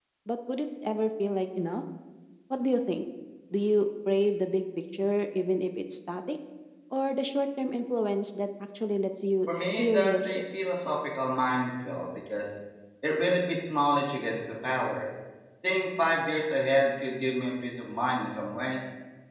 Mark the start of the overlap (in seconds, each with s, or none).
9.5 s